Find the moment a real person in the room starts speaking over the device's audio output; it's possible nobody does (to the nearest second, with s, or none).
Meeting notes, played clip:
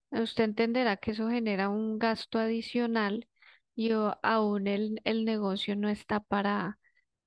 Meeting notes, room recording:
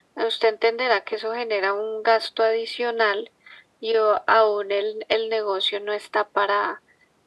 none